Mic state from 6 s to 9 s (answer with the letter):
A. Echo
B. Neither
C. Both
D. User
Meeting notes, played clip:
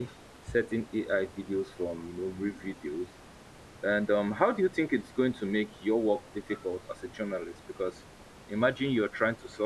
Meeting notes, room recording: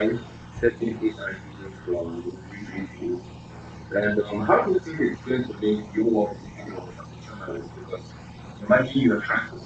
A